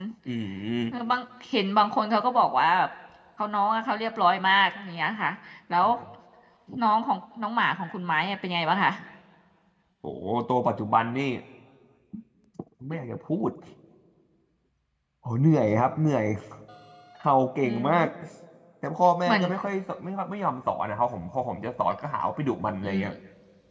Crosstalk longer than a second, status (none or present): none